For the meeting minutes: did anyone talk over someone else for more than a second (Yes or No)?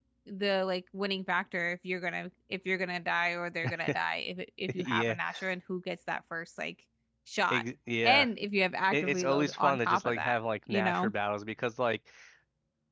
Yes